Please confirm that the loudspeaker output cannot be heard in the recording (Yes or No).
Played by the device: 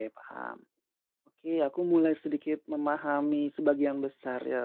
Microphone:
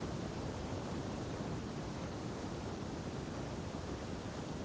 Yes